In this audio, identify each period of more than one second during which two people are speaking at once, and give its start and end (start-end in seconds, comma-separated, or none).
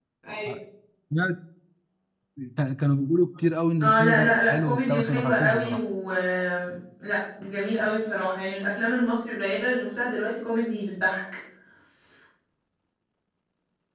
3.8-5.8